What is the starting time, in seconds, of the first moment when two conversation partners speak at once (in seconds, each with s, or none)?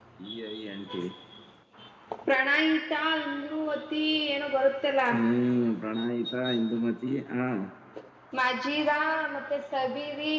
none